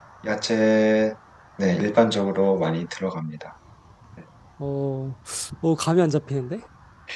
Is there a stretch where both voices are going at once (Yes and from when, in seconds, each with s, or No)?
No